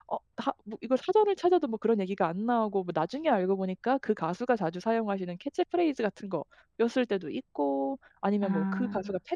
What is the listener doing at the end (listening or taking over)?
listening